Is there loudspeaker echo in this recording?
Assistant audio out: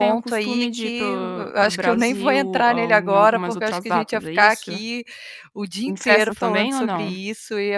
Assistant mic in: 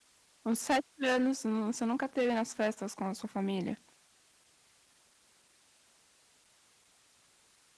No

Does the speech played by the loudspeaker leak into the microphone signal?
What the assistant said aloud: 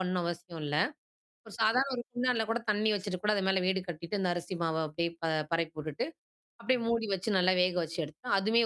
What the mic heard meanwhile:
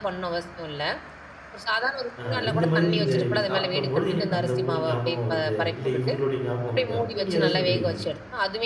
Yes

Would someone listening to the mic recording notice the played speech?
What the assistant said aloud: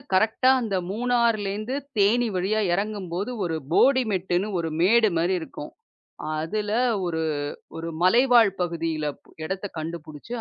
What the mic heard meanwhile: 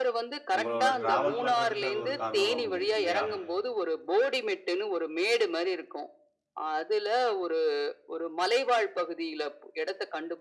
Yes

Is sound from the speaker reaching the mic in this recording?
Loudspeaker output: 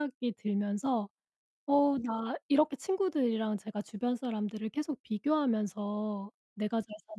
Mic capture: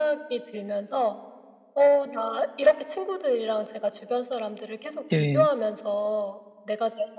Yes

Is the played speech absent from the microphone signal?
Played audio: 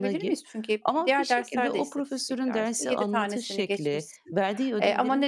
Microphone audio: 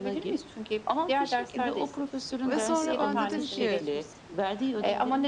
No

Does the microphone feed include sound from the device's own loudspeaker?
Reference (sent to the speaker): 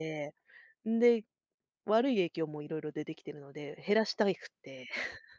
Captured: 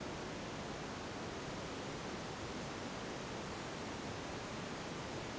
No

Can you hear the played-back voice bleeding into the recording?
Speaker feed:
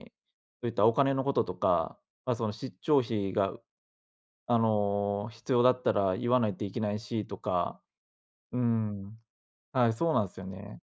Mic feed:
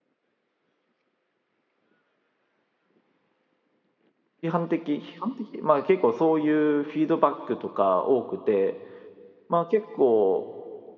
No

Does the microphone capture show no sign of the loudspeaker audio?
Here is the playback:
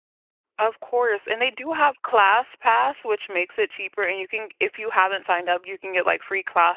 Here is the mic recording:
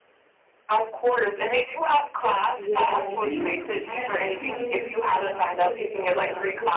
No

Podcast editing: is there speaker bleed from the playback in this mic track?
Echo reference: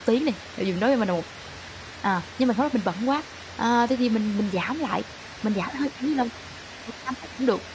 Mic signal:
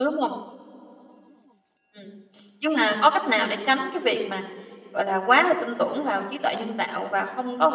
No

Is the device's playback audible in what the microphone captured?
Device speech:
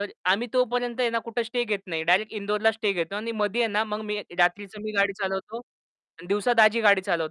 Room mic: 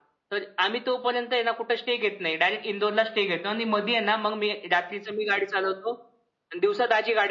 Yes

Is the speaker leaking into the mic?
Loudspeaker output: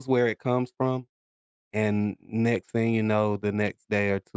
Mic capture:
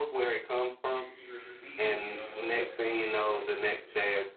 Yes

